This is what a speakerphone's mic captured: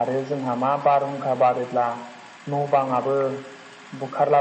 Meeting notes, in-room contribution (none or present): none